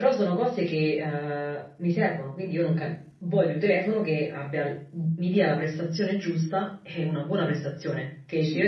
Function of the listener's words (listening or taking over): listening